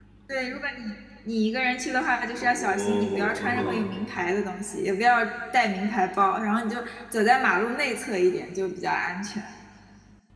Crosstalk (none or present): present